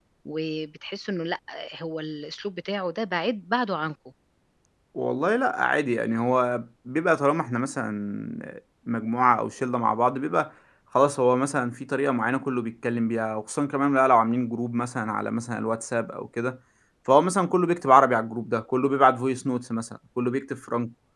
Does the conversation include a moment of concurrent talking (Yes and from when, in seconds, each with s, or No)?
No